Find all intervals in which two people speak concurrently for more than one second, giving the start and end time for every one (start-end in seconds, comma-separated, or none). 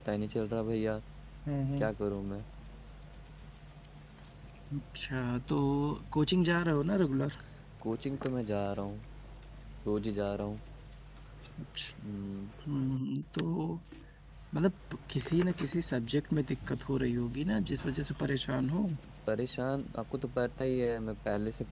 none